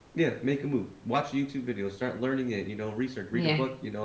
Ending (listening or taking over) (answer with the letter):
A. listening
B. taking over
A